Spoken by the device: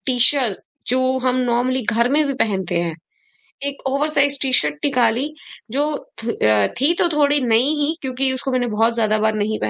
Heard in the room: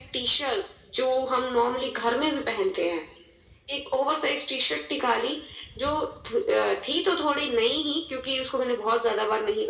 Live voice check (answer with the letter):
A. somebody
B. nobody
B